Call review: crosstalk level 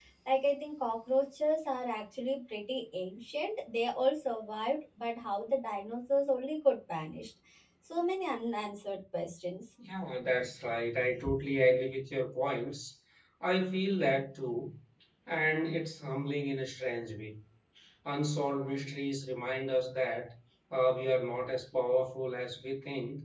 none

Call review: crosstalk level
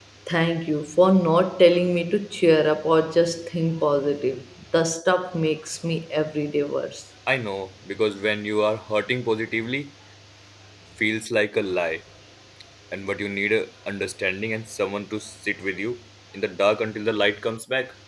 none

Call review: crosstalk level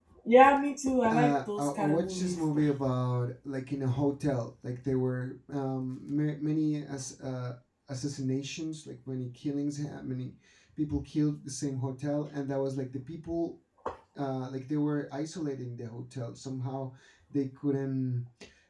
present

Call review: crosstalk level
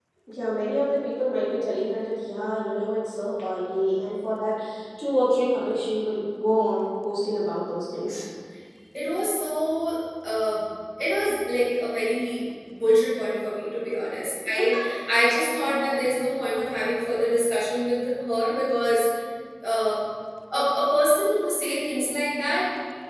none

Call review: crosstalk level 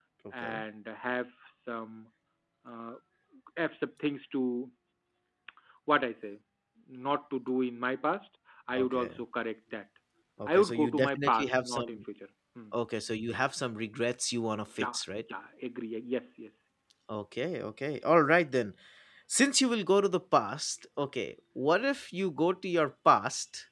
present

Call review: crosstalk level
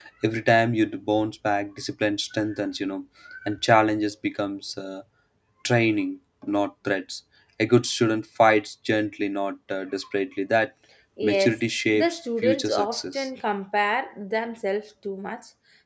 present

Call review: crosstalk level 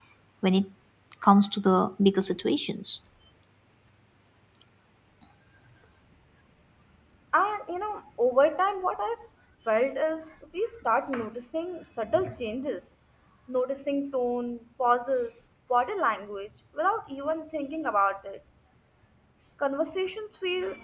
none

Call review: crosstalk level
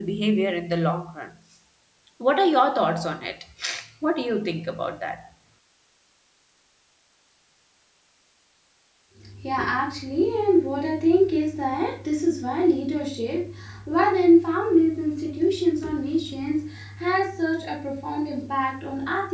none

